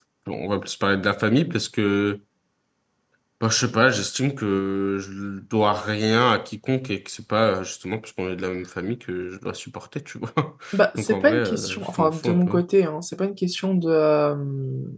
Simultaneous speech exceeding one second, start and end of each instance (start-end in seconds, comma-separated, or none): 11.0-12.6